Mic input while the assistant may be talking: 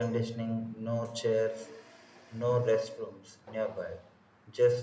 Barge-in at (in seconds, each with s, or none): none